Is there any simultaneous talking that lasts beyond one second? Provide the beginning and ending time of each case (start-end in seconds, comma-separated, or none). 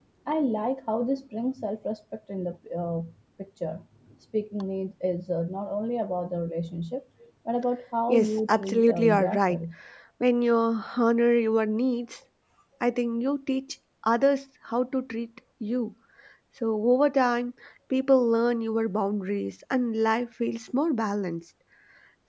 8.1-9.6